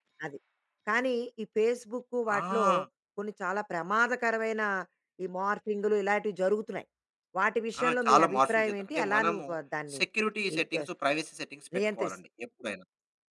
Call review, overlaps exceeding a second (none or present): present